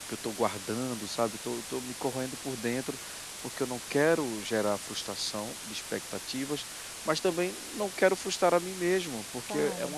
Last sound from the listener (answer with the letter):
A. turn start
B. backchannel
B